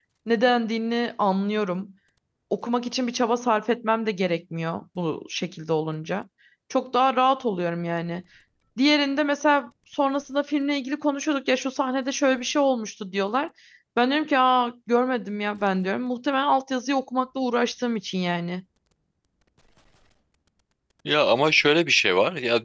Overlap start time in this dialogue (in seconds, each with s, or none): none